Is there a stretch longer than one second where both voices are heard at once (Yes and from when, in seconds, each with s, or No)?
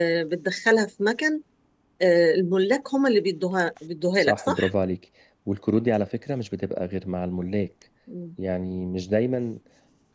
No